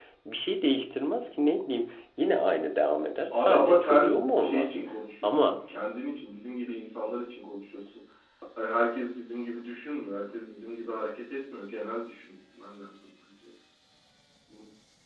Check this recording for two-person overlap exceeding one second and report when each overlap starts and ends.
3.3-4.8

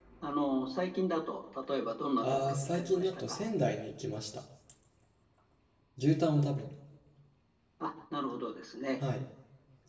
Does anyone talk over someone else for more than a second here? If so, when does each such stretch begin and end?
2.2-3.5

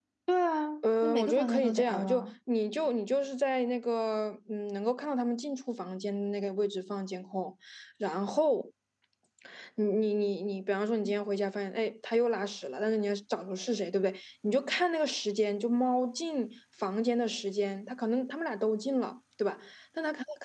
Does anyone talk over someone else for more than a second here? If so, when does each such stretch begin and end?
1.0-2.3

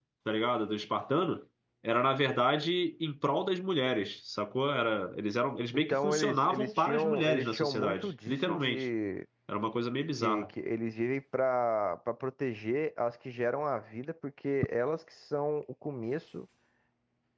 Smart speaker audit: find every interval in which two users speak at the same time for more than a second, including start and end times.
5.9-8.8

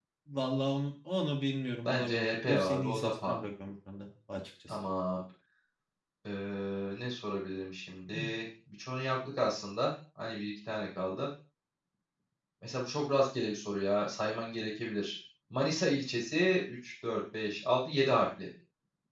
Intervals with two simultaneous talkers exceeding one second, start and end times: 1.9-3.4

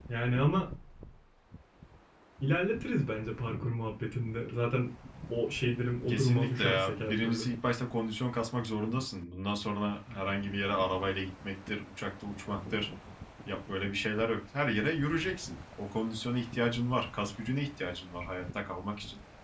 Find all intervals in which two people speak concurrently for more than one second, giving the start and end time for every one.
6.1-7.5

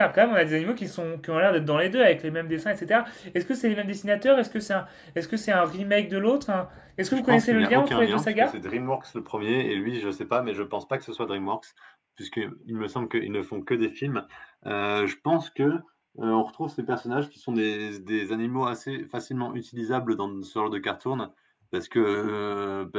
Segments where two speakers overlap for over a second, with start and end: 7.1-8.5

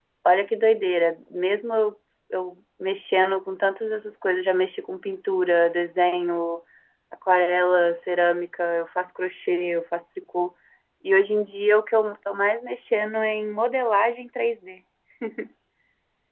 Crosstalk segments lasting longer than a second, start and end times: none

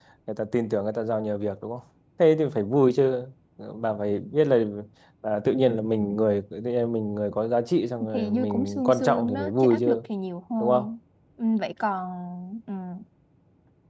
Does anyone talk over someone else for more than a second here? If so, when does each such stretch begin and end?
8.1-10.0

